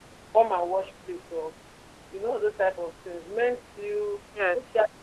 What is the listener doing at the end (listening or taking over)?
listening